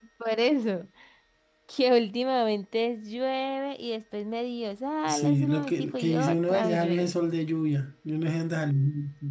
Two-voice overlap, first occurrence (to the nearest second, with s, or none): 5 s